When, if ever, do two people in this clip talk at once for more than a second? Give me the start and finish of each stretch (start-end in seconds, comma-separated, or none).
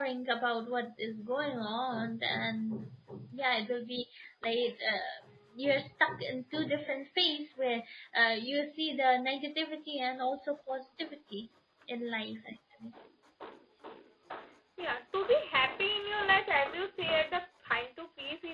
none